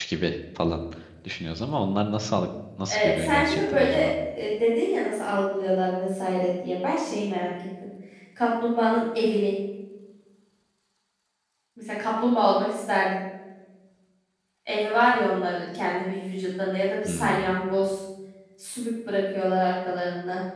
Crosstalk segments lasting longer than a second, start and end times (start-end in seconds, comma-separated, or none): 2.9-4.1